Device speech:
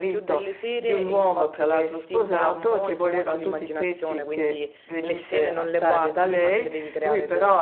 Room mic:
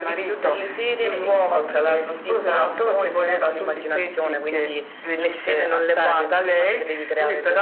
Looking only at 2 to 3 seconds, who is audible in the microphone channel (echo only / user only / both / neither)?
echo only